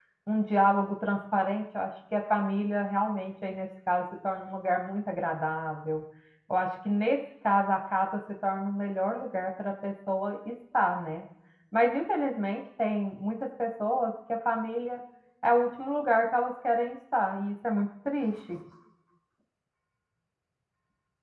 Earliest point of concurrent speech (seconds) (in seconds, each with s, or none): none